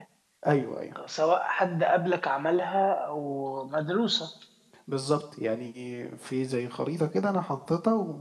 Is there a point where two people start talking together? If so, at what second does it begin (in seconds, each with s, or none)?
none